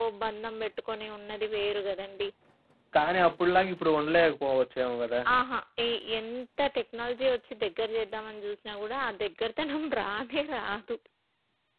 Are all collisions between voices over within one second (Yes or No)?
Yes